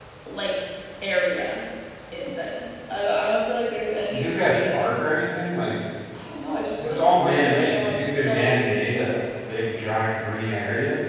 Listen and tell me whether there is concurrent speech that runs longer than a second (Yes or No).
Yes